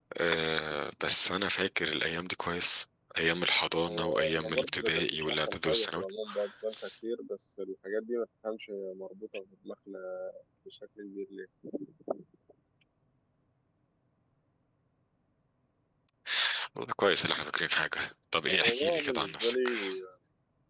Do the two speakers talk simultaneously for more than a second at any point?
Yes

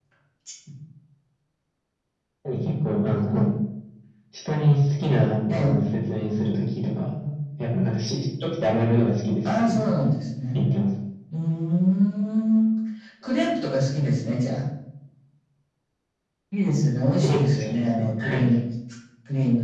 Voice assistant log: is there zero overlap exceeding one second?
No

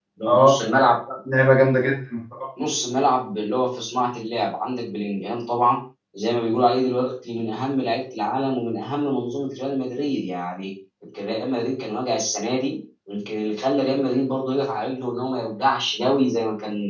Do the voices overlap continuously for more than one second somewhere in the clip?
No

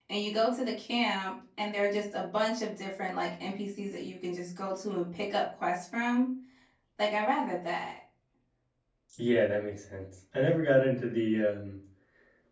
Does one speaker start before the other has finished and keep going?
No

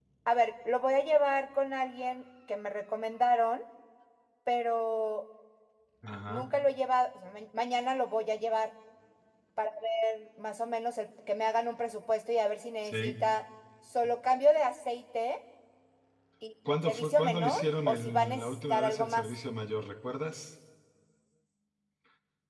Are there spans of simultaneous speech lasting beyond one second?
Yes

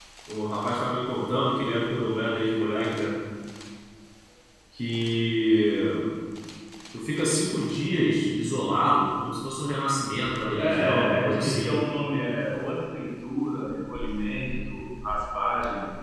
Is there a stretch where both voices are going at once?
Yes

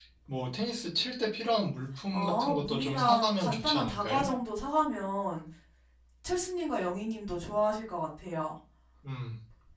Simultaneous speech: Yes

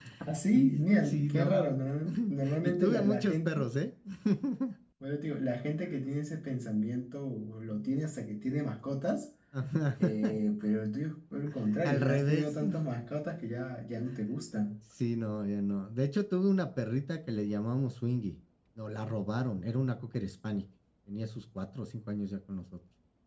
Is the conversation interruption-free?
No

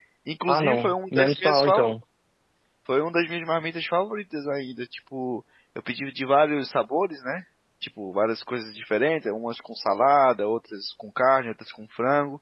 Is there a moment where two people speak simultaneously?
Yes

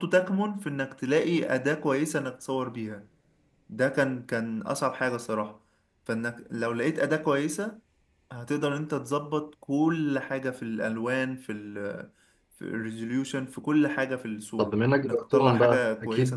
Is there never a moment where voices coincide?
No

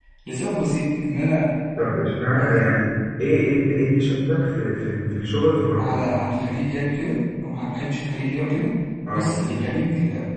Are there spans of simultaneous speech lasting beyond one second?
No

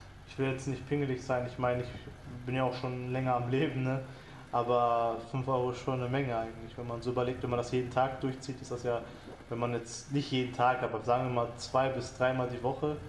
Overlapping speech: No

